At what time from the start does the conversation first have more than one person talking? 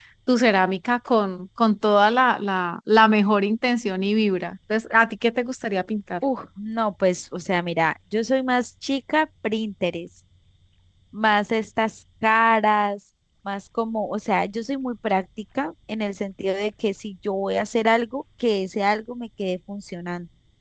none

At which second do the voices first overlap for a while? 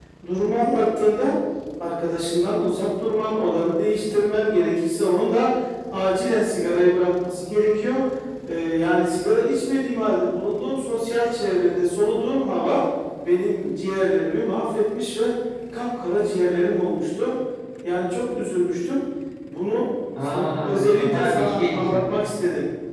20.2 s

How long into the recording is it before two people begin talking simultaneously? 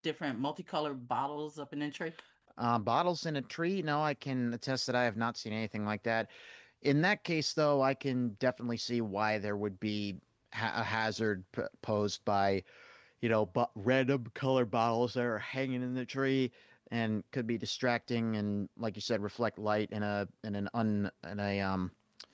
none

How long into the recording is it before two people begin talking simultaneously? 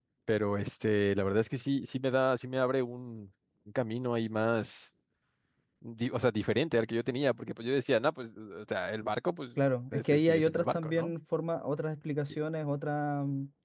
9.9 s

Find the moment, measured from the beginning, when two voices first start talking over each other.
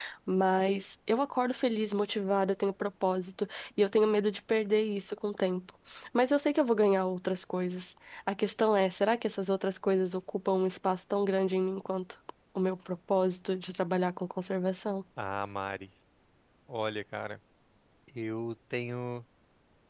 none

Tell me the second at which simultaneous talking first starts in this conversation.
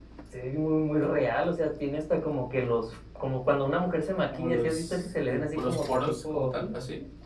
4.3 s

